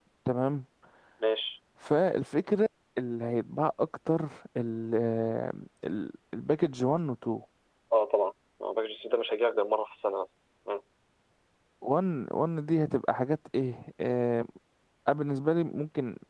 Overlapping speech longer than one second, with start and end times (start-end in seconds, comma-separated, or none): none